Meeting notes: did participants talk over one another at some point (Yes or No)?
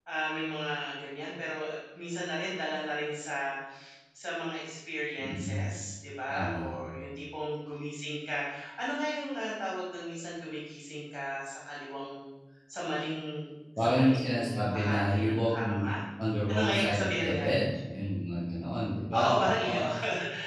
Yes